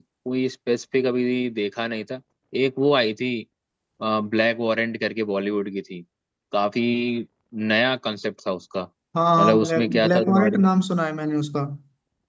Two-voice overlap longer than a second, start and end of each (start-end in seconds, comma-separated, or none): 9.4-10.6